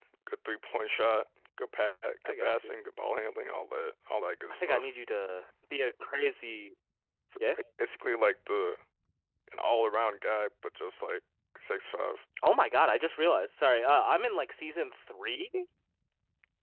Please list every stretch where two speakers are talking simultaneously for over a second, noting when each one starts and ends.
none

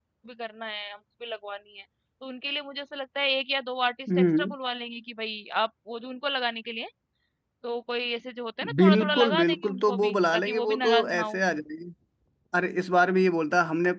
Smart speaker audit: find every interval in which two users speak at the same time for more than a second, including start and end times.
8.8-11.4

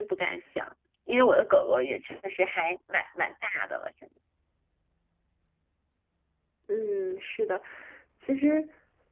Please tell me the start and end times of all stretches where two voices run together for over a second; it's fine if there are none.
none

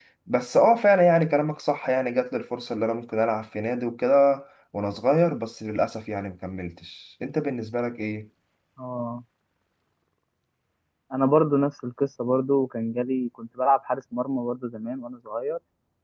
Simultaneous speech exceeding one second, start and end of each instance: none

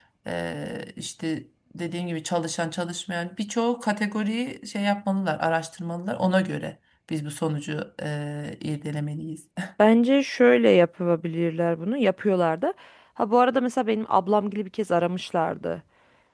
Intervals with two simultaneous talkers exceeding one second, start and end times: none

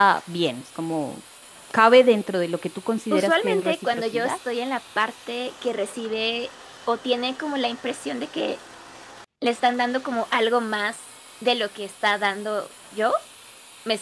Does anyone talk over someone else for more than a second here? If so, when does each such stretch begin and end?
3.1-4.4

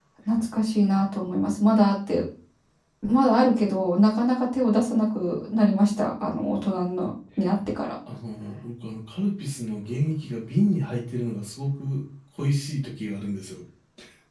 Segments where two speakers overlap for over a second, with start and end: none

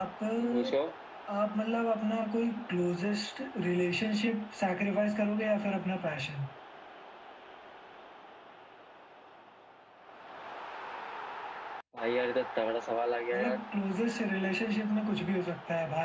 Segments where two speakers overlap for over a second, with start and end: none

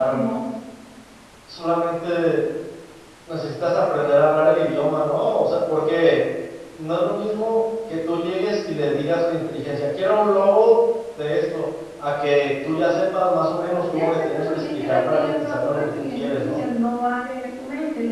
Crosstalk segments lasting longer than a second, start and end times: 13.9-16.6

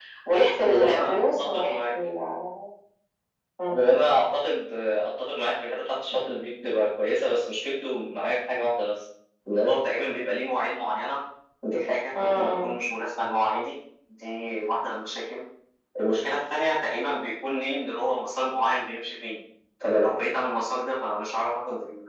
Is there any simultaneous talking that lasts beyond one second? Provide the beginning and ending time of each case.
0.7-1.9

